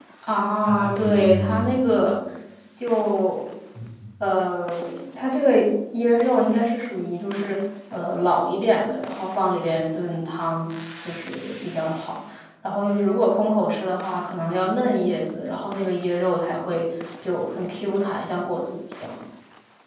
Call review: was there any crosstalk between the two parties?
Yes, from 0.5 s

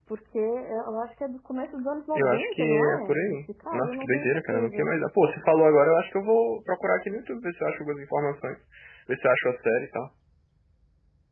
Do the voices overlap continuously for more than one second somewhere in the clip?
Yes, from 2.1 s

